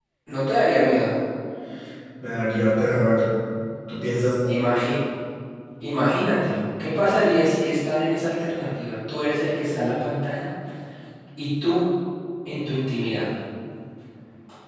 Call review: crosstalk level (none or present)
none